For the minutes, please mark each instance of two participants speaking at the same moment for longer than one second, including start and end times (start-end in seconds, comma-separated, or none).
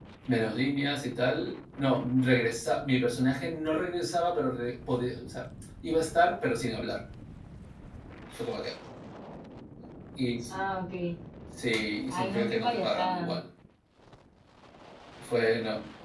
12.1-13.4